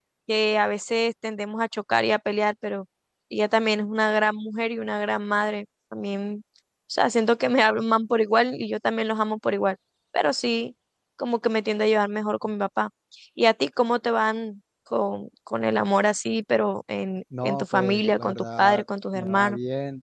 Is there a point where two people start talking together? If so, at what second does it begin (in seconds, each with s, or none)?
17.3 s